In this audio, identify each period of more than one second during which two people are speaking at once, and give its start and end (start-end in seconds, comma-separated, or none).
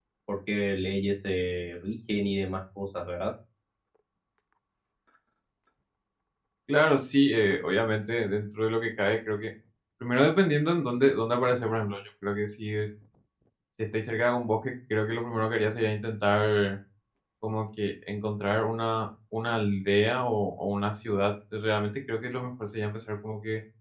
none